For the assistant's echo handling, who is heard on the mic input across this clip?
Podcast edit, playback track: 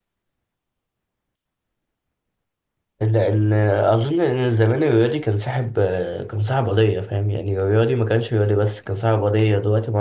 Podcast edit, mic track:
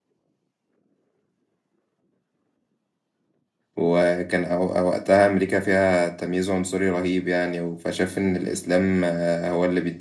user only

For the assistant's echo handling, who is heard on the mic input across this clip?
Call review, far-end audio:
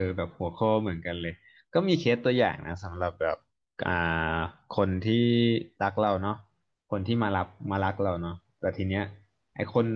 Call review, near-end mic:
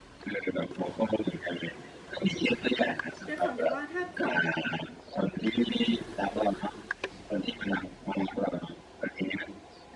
both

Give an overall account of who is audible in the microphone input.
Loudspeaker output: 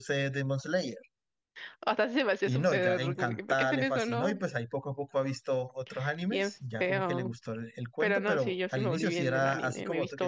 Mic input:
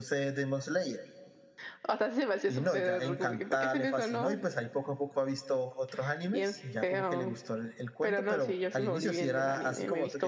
echo only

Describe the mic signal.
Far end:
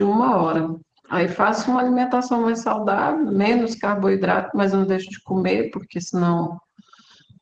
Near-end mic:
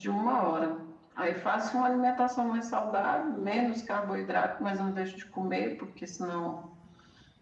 echo only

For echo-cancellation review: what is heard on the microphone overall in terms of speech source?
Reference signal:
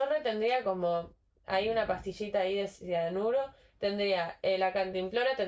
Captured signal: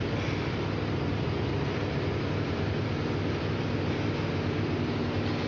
neither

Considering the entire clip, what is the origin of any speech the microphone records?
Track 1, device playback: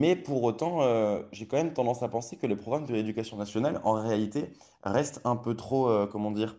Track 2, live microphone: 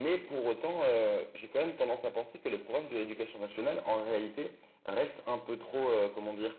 echo only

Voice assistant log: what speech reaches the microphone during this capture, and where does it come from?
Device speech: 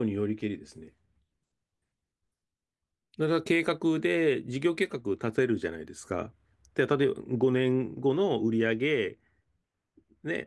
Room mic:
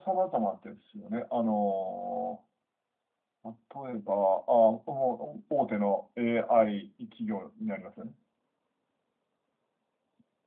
user only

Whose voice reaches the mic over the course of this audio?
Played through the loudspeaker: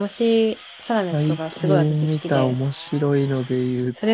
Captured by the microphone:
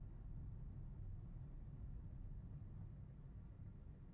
neither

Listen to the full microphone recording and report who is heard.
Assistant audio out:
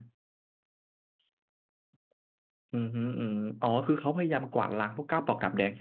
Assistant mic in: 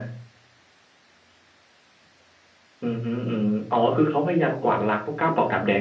echo only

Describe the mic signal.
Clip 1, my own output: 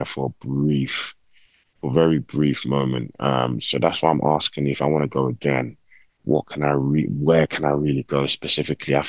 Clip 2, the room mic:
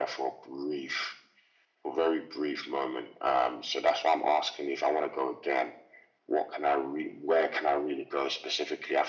echo only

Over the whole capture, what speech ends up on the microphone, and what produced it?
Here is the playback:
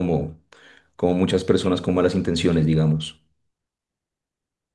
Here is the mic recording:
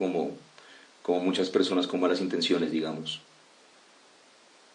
echo only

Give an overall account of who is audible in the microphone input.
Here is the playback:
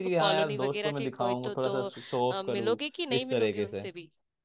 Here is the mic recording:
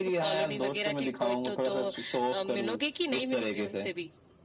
echo only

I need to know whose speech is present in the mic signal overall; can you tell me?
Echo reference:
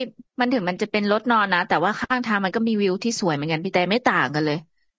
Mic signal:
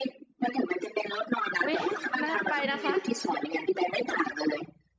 both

